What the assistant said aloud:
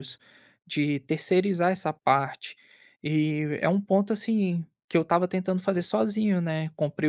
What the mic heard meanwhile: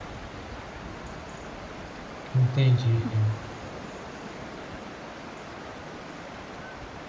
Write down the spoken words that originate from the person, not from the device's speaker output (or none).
entendi,